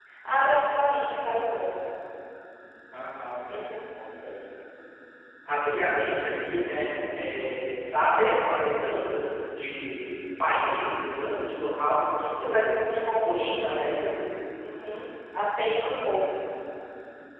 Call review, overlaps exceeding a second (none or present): present